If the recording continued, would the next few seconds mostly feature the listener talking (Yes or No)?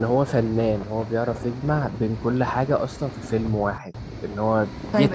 Yes